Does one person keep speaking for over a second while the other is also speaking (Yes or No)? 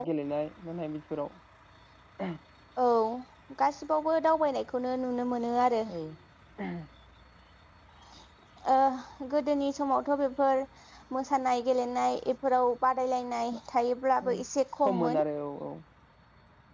No